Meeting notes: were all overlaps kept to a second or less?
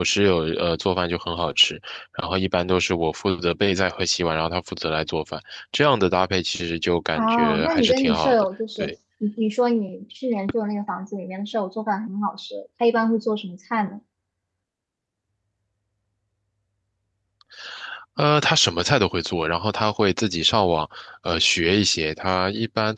No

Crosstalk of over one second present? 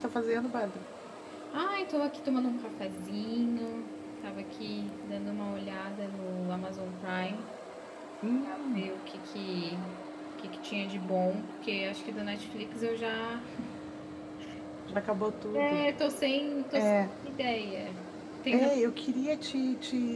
No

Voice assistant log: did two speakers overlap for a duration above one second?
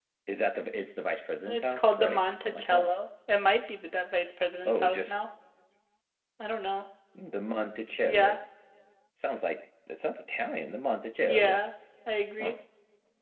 Yes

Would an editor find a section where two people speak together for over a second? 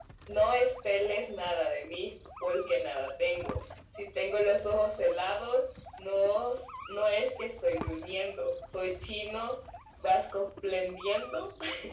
No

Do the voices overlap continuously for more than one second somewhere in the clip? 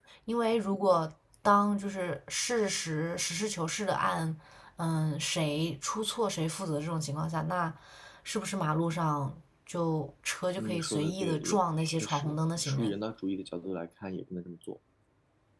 Yes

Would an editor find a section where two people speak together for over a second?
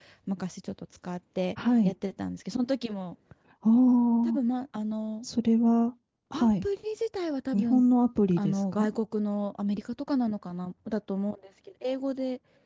No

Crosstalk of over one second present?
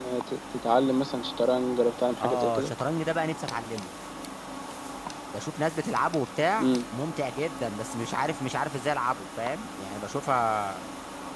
No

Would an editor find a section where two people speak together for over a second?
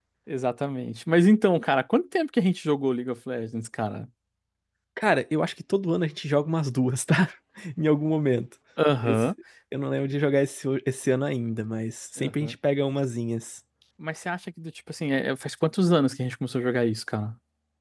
No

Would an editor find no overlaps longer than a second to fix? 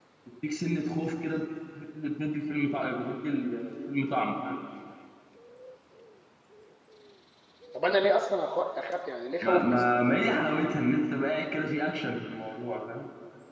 Yes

